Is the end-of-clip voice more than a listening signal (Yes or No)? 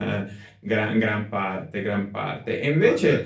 No